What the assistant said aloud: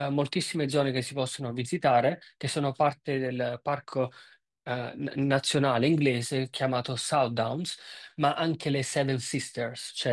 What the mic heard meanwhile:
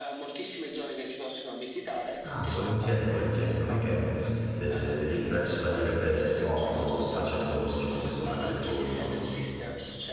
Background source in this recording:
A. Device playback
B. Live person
A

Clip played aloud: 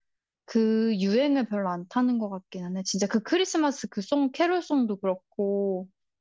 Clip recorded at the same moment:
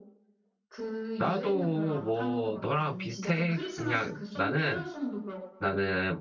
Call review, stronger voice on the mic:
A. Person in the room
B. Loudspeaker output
A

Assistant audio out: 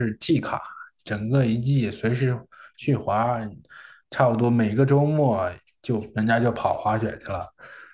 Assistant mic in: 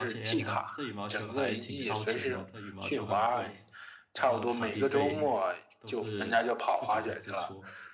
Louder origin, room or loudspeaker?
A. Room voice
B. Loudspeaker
B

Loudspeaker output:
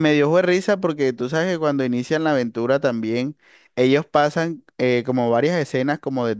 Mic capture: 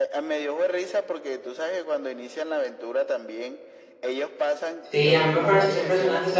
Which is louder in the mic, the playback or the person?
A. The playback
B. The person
B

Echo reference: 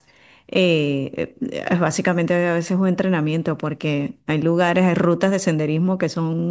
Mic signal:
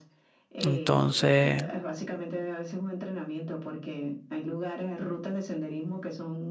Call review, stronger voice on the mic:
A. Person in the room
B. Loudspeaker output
A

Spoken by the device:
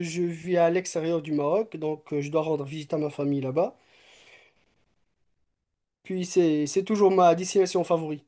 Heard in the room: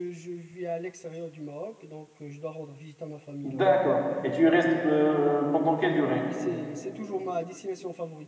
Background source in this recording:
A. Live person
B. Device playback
B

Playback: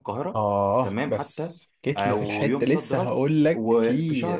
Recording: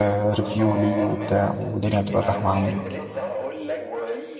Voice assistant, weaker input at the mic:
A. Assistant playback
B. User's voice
A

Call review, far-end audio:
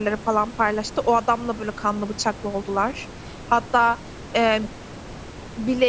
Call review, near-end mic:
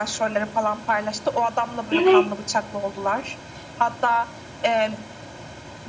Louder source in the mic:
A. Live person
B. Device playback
A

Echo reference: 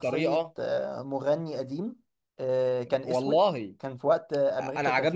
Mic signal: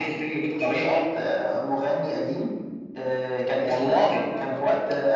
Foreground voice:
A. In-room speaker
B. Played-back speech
B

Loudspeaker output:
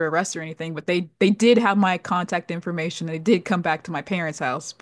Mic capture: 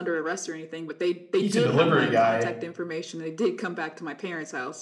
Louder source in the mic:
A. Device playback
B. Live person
B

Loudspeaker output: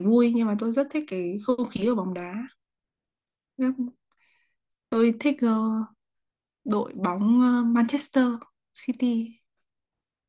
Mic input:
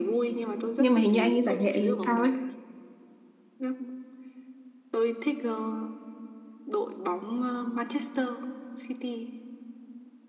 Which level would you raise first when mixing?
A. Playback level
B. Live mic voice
A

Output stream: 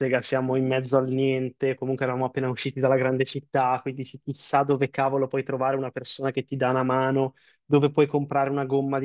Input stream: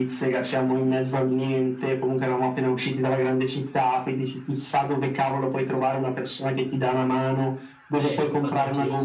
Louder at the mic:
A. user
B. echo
B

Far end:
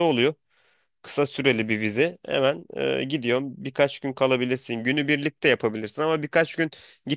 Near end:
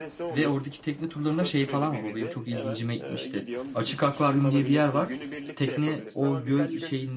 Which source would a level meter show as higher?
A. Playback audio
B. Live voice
B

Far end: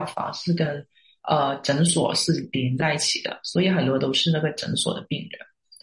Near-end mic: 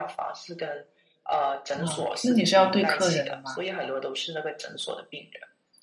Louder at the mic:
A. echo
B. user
B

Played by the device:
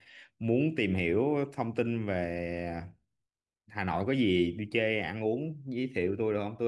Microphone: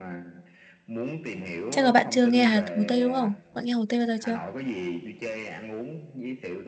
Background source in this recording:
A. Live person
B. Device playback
B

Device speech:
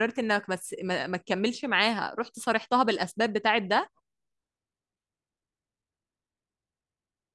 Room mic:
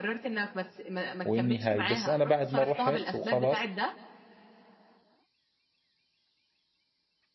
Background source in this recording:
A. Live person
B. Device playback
B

